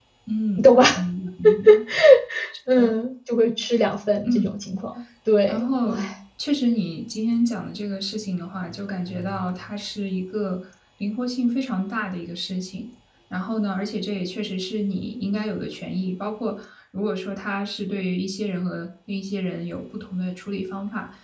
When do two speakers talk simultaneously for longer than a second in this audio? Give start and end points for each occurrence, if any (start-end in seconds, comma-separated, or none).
none